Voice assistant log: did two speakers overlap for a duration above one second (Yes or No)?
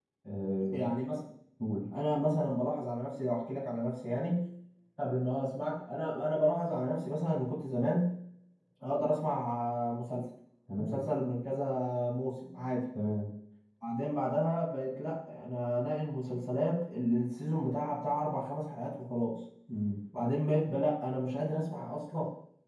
No